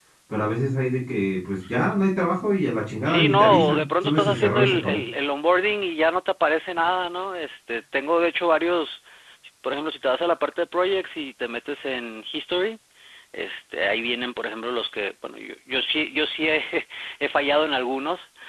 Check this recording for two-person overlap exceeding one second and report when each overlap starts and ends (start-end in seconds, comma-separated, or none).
3.0-5.0